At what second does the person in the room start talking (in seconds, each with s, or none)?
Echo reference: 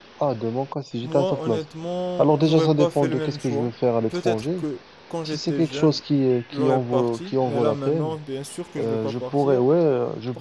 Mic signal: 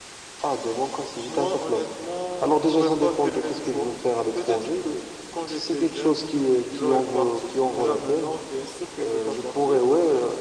none